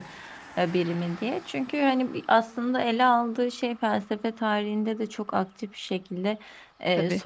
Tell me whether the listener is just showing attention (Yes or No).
Yes